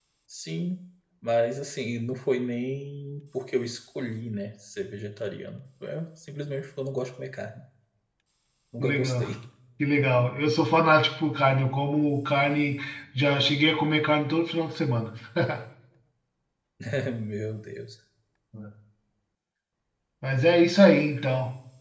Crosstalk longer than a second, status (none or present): none